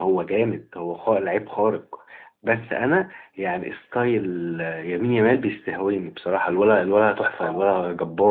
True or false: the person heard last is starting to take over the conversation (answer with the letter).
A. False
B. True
B